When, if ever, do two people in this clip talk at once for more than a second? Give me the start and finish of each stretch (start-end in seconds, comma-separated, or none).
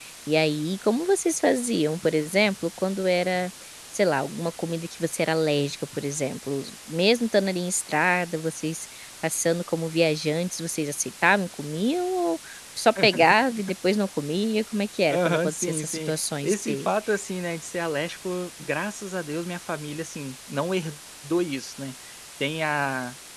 15.1-16.9